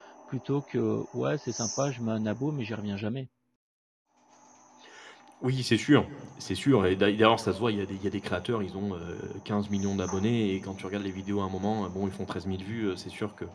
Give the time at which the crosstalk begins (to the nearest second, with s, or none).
none